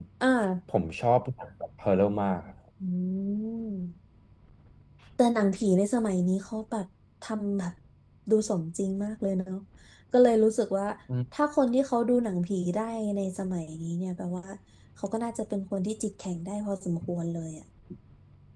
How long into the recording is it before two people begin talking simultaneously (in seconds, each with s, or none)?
none